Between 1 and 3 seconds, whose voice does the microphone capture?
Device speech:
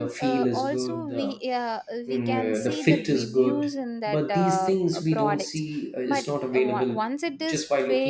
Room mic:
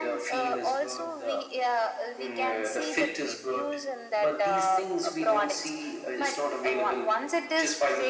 echo only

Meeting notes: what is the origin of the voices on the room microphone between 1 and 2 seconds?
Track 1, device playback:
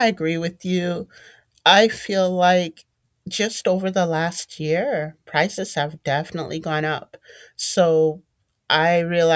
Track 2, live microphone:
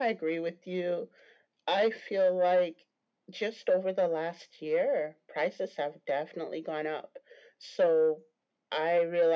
echo only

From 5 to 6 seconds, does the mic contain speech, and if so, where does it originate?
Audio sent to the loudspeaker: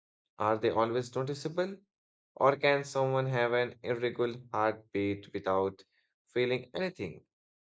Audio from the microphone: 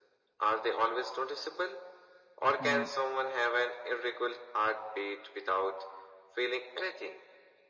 echo only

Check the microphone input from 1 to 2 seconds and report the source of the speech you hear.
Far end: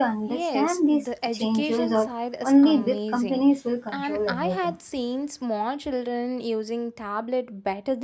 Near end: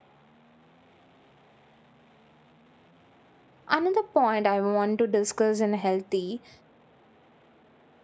neither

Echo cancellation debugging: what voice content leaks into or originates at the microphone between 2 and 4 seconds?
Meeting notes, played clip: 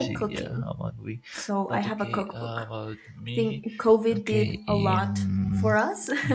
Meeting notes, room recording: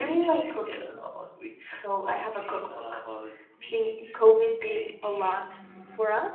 echo only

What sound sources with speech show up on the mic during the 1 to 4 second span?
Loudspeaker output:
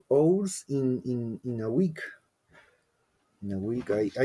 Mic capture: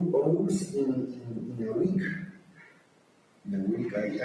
echo only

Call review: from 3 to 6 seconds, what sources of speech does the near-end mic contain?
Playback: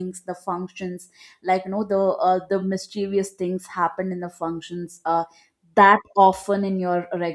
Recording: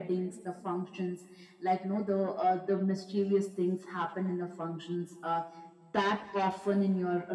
echo only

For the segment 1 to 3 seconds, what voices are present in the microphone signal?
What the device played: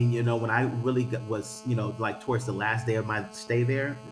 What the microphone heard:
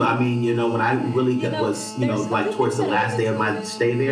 both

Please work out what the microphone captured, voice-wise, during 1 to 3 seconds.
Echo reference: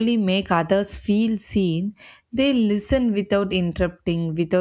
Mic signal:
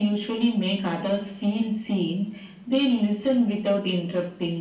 echo only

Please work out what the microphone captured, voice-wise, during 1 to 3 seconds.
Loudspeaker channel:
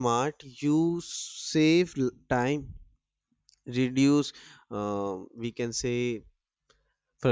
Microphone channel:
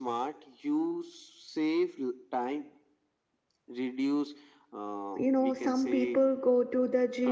echo only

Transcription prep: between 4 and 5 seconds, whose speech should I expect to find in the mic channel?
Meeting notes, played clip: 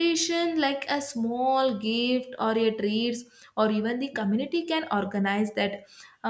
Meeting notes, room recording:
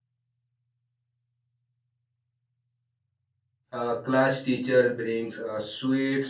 user only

